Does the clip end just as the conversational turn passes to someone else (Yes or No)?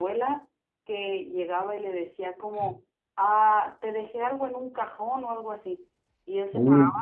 No